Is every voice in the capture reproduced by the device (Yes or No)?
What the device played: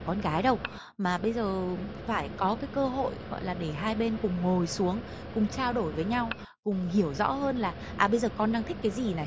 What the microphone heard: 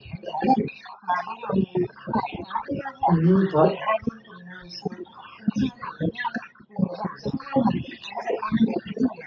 No